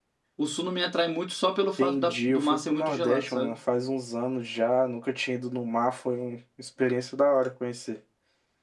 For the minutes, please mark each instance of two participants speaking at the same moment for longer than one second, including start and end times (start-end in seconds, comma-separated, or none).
1.8-3.5